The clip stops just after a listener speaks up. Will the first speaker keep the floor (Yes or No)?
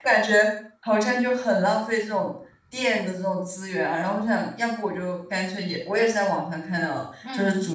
Yes